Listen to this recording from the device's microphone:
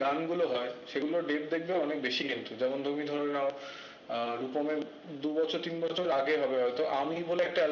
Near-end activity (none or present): none